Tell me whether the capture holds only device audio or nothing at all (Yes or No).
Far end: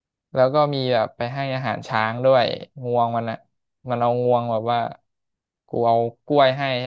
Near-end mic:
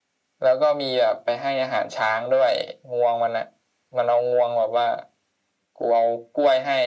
Yes